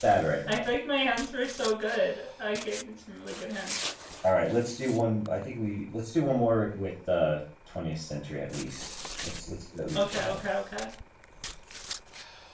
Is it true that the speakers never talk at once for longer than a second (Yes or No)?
Yes